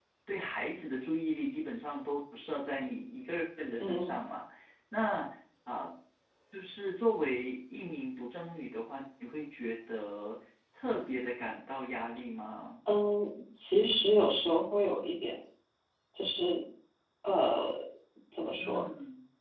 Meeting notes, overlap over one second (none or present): none